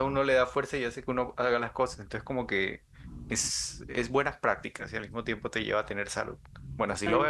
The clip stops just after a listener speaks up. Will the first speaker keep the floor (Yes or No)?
No